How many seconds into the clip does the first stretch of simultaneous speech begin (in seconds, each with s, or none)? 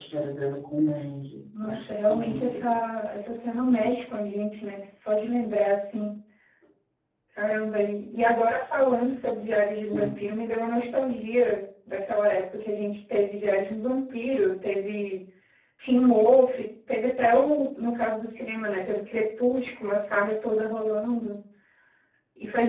1.6 s